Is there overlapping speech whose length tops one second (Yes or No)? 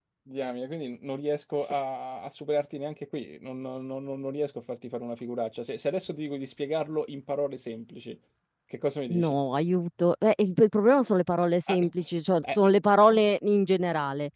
No